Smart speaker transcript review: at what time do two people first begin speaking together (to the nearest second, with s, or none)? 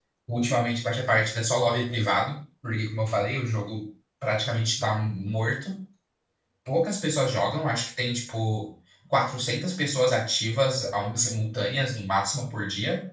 none